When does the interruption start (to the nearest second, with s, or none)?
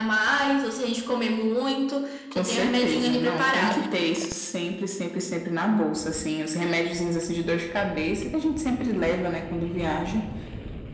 2 s